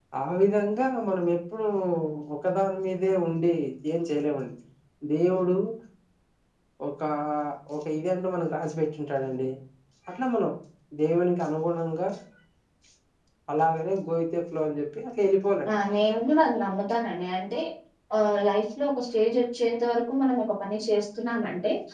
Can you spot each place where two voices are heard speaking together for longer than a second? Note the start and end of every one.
none

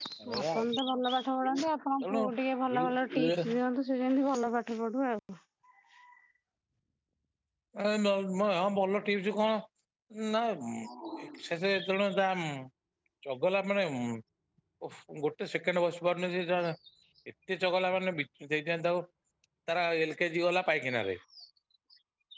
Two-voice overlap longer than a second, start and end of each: none

